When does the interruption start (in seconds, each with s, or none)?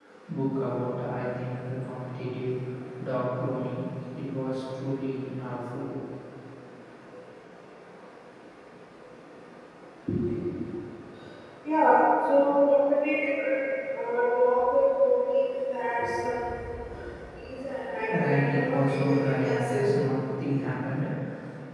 18.1 s